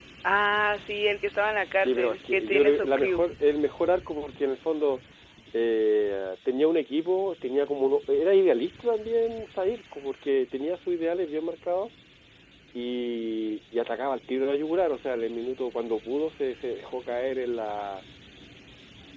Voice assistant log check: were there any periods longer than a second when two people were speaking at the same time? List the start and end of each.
1.8-3.2

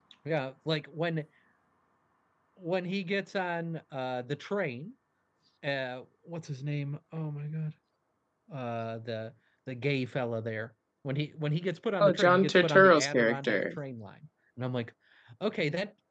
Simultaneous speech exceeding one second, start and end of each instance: 12.0-13.8

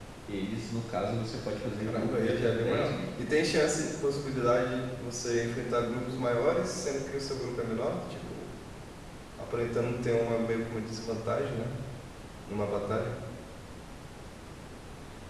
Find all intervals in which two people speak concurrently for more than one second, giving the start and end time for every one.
1.8-3.5

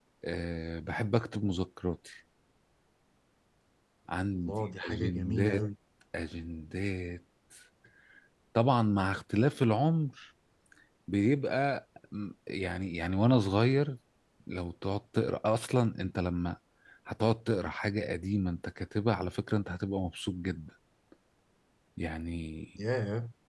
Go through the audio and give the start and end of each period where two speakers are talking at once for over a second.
4.3-5.7

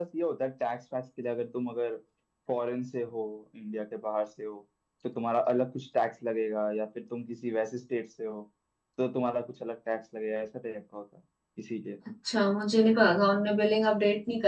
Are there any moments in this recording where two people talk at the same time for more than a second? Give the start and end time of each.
none

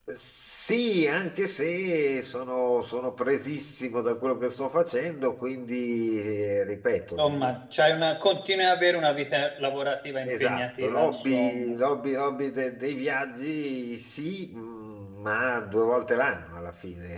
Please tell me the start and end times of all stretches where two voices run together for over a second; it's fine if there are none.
10.2-11.7

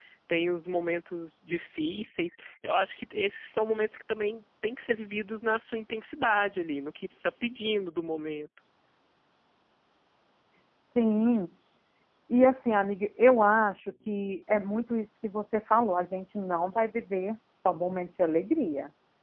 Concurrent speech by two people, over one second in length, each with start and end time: none

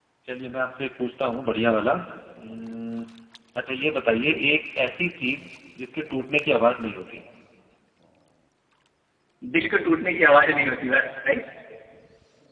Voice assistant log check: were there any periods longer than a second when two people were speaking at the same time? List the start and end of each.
none

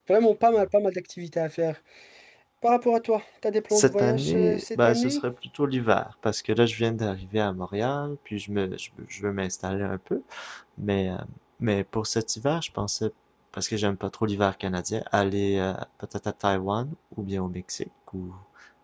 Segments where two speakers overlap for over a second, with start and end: 3.7-5.2

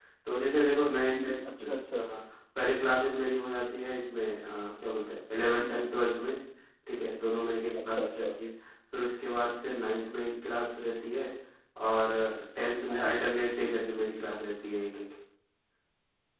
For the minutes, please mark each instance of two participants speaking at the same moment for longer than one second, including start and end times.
none

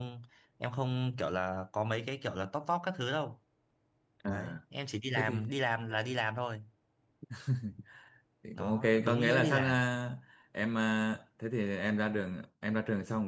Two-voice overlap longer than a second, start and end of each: 8.6-9.8

